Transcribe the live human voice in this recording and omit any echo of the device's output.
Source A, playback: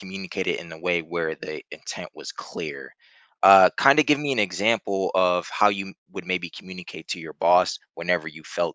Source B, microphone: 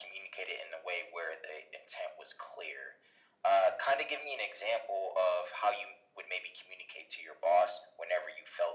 none

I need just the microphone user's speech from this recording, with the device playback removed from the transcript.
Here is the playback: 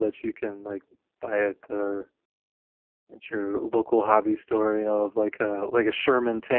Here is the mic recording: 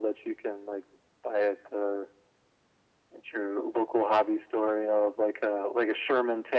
none

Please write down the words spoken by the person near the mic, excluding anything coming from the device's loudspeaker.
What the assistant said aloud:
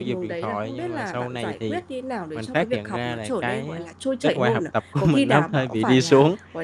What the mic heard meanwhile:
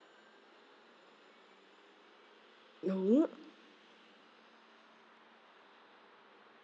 Đúng.

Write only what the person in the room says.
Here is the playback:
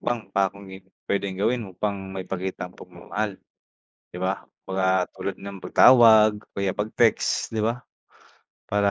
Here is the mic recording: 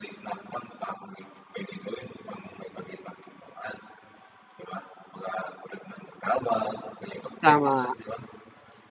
tama.

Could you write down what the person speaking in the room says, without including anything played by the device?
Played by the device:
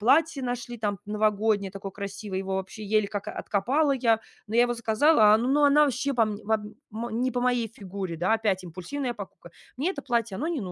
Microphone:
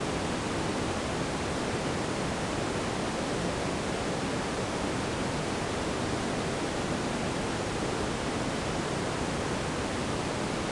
none

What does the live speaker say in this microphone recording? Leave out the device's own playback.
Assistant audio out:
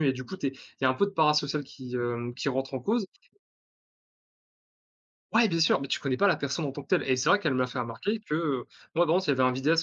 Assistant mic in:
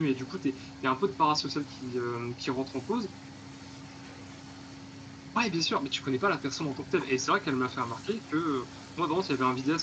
none

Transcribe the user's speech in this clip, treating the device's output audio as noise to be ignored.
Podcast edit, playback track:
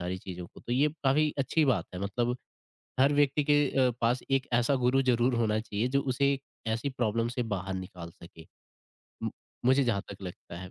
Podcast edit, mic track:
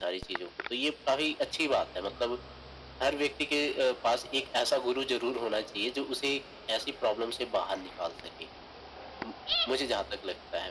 none

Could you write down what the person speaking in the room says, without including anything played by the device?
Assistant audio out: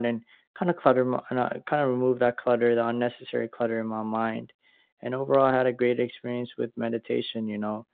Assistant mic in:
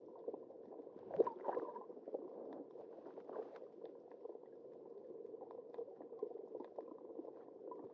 none

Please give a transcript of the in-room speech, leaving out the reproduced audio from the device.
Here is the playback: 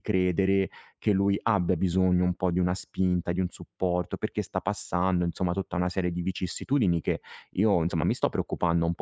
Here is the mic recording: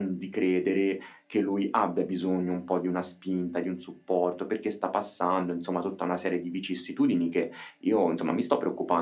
none

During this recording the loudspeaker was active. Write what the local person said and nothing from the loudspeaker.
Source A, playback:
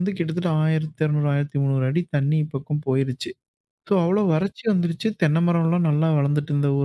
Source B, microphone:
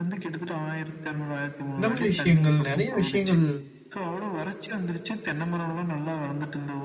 இந்த மாரி விஷயங்கள் நெறைய விஷயங்கள்

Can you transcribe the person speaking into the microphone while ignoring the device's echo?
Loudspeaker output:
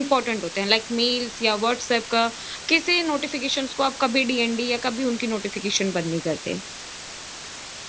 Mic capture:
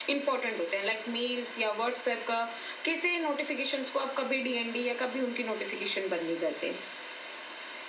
none

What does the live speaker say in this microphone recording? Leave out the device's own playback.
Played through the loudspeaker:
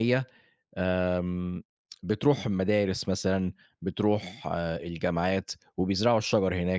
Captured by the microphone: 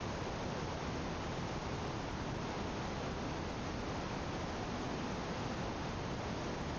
none

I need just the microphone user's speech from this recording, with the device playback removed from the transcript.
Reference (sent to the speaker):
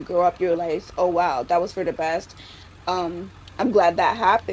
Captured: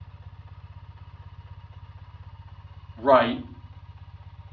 Right.

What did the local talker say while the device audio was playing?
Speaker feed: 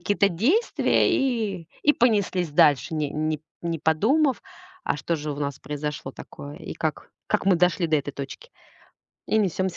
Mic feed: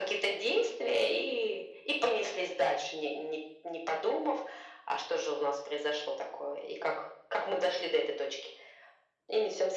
none

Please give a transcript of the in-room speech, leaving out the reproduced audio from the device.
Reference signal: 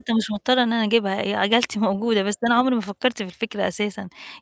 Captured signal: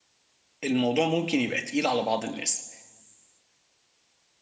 الموضوع ممكن يبقى تقيل على بعض الناس،

